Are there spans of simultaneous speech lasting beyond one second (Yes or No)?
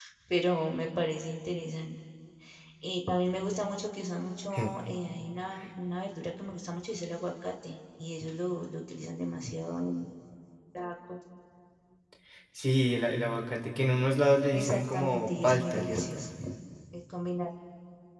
Yes